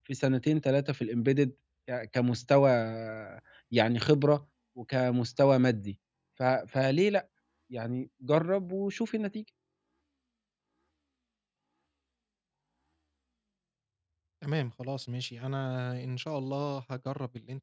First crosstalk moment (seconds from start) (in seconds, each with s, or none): none